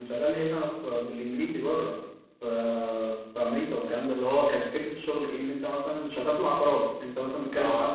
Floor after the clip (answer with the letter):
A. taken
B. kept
B